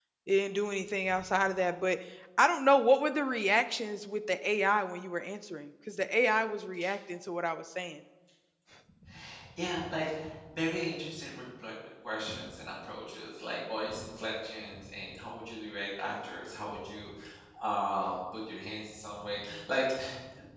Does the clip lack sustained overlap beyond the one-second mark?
Yes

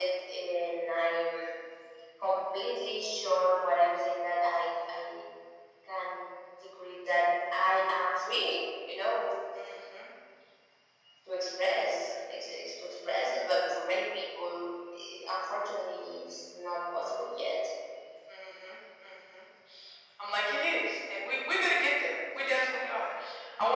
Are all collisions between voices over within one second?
Yes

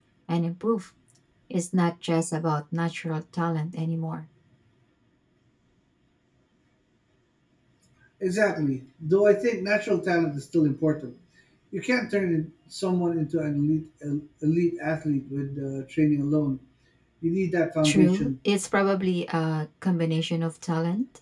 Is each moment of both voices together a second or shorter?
Yes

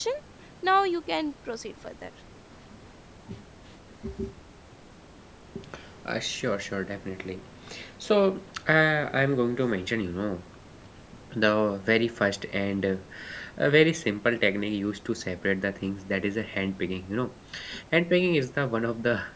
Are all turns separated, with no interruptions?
Yes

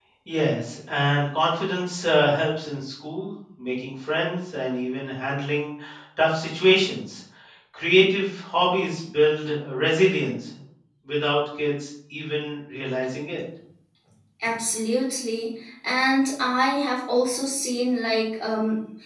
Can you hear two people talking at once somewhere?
No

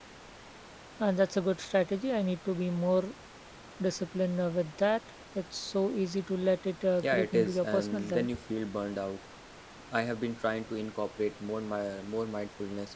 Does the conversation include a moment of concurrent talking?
Yes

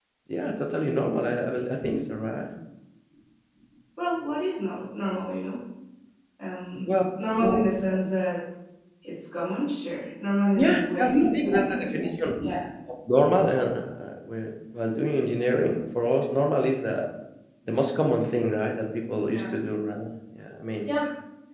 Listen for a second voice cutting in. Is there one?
Yes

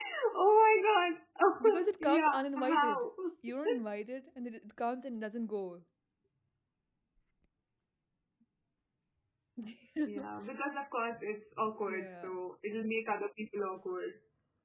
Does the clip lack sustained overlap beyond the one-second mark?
No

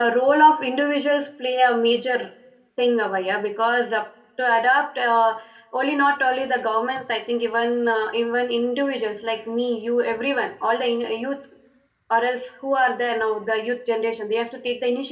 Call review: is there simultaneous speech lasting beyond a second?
No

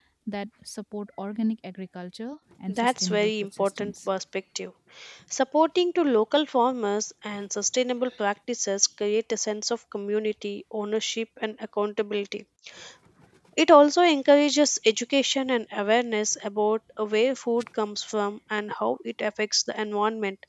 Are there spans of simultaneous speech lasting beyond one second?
Yes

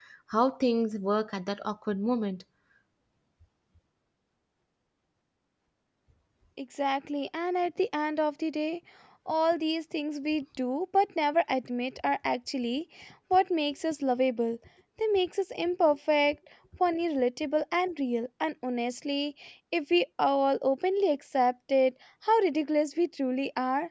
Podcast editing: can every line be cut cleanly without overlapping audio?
Yes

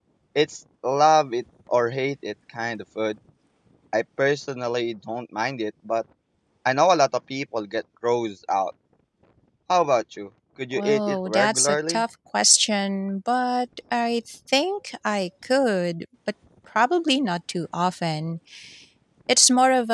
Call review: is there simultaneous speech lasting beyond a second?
Yes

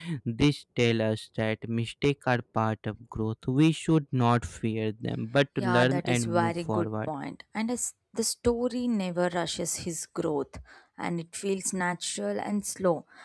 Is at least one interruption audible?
Yes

